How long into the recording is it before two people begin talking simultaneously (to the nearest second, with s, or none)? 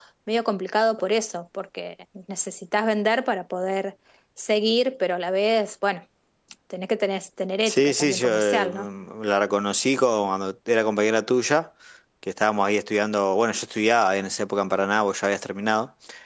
8 s